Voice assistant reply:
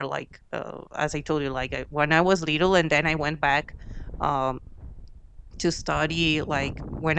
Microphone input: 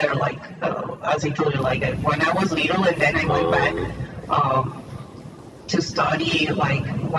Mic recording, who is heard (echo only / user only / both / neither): both